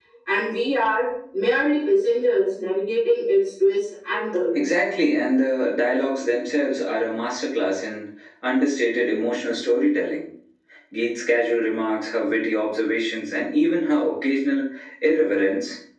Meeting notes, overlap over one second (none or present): none